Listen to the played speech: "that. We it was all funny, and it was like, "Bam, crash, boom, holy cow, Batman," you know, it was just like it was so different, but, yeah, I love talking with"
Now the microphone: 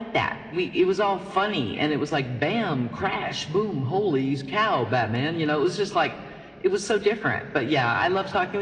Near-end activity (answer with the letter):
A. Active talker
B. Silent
B